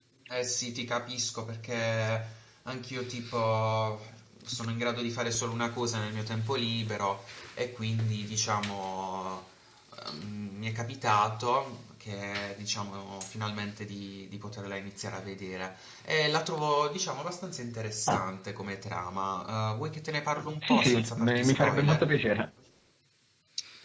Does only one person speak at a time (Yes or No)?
No